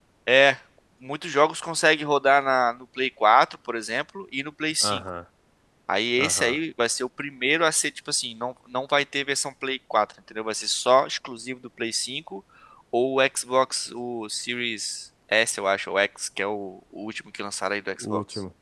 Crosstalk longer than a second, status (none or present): none